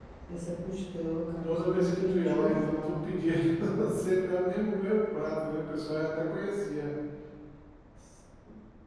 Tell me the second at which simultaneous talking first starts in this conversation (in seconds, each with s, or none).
1.4 s